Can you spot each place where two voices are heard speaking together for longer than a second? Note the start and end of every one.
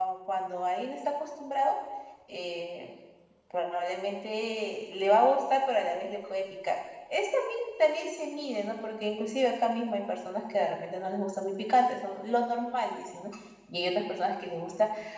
none

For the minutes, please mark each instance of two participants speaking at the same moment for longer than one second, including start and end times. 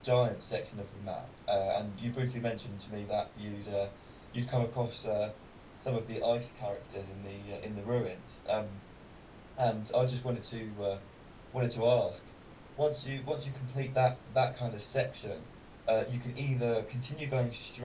none

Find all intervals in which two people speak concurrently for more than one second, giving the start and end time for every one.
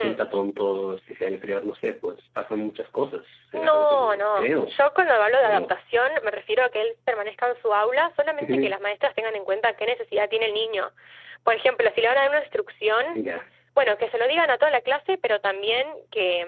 3.5-4.7

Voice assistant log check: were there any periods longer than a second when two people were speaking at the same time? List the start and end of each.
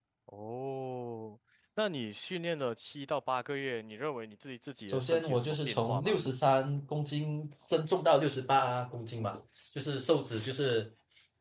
4.9-6.2

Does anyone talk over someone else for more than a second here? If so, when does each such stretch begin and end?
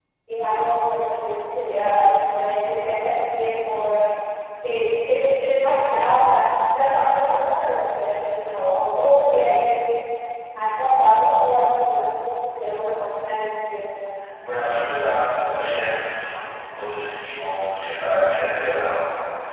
none

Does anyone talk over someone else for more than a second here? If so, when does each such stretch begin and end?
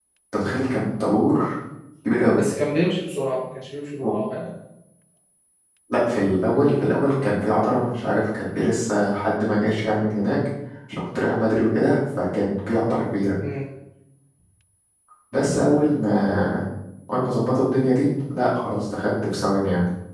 none

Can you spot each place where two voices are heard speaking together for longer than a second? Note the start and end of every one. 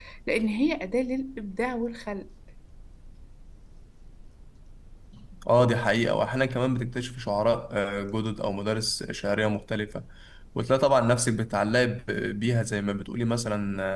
none

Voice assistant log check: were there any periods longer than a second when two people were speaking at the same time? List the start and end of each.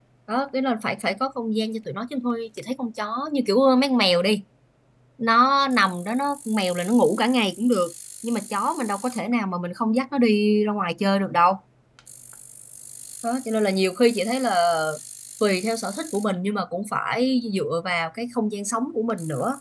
none

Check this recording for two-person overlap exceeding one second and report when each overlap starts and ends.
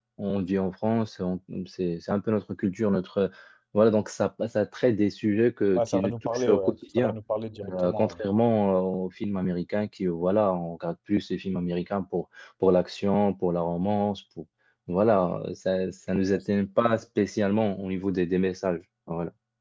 5.8-7.1

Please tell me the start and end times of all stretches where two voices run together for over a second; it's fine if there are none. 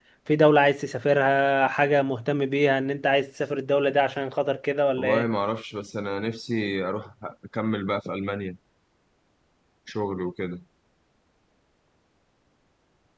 none

